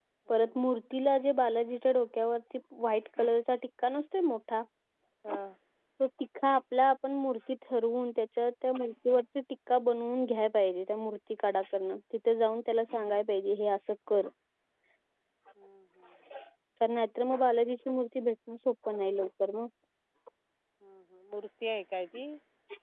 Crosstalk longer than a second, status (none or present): none